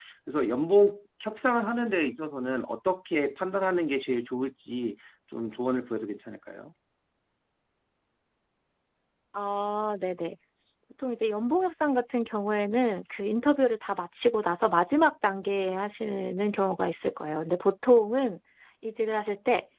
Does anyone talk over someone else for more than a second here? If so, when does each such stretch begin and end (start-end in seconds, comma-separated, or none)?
none